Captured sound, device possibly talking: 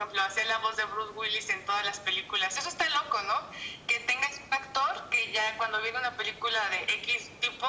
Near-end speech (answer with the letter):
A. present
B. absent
B